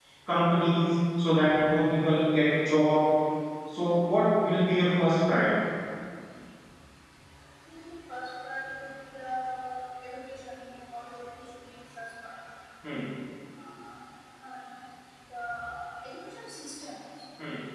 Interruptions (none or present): none